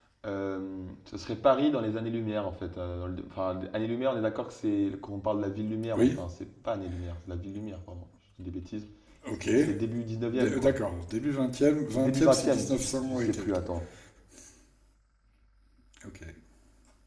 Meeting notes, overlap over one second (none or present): present